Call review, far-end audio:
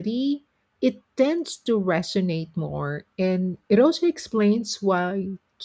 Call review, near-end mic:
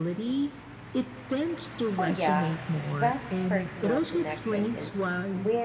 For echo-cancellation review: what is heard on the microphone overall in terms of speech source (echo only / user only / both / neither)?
both